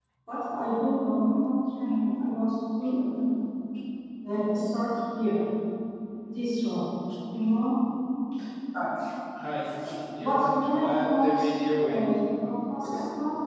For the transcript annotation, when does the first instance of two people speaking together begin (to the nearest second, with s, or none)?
10 s